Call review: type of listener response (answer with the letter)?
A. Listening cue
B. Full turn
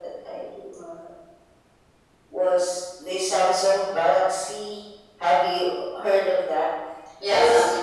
B